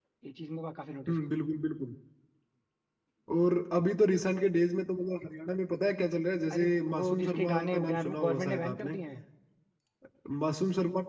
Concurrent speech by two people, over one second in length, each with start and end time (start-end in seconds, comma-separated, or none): 6.5-9.0